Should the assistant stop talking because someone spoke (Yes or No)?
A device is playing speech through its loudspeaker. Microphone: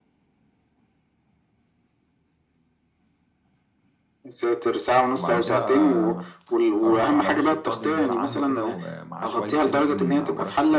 Yes